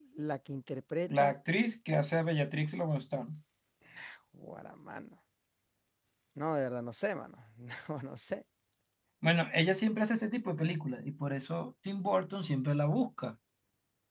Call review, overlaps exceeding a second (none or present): none